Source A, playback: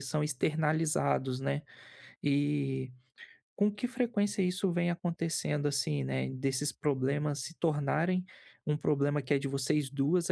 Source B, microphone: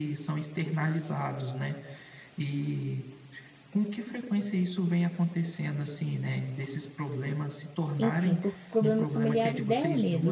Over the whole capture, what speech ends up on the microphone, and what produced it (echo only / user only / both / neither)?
both